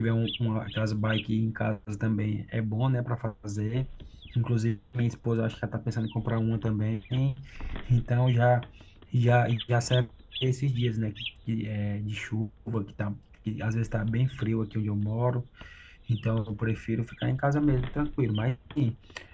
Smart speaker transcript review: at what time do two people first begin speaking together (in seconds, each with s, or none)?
none